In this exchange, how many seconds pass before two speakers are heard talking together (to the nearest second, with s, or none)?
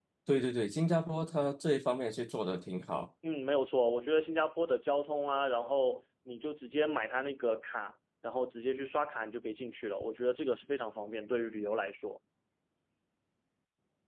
none